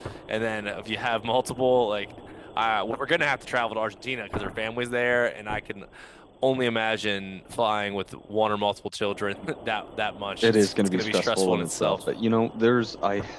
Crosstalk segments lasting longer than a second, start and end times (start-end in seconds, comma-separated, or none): 10.4-11.9